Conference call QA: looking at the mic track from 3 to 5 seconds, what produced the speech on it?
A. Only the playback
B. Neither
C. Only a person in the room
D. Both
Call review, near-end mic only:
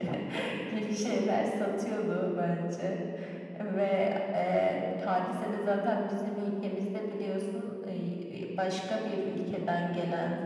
A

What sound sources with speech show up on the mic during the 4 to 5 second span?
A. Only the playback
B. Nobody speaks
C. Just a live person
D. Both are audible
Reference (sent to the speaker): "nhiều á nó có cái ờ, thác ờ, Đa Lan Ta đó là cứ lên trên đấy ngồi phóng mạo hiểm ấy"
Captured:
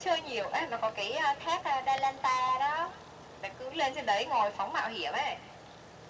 A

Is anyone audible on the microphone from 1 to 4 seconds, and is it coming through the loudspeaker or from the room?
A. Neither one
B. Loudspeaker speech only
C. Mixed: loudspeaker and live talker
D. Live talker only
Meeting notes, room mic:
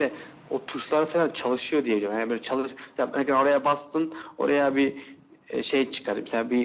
B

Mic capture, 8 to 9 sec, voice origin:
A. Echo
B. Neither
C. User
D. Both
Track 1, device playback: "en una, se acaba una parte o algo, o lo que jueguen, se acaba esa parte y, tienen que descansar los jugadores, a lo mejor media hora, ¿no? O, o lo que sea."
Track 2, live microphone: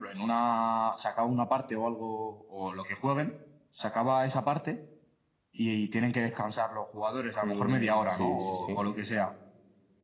D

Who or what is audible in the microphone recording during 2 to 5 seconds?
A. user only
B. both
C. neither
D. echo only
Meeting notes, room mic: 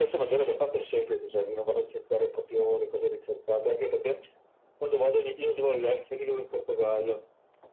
D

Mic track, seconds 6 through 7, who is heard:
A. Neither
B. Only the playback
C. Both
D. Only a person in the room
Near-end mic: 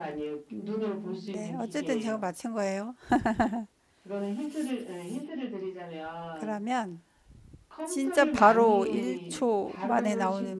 C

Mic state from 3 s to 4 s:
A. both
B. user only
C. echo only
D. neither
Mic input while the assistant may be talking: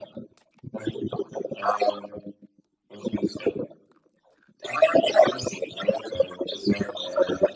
C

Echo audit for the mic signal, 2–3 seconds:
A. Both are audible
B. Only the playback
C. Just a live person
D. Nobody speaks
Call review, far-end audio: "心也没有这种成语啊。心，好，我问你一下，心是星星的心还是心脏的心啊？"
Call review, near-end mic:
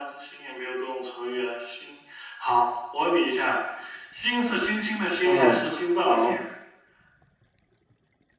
B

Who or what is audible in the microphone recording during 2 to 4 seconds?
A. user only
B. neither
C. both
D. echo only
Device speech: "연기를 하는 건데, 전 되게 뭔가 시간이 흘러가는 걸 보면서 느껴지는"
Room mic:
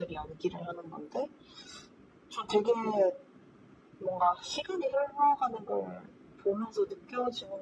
D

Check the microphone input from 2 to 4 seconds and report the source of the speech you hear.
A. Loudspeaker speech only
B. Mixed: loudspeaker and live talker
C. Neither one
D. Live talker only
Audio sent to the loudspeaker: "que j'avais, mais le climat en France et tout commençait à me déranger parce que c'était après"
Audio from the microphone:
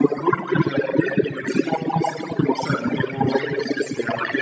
A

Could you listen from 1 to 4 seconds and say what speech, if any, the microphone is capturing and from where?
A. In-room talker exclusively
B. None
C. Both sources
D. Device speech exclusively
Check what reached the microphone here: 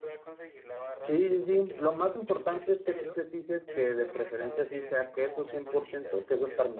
C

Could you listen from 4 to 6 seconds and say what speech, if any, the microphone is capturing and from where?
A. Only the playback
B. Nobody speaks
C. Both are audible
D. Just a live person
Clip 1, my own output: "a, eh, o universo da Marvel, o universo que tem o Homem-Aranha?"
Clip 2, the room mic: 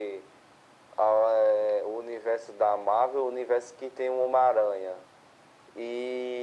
A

